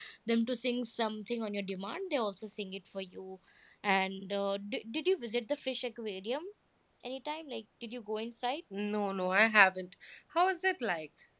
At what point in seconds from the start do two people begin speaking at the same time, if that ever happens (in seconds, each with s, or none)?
none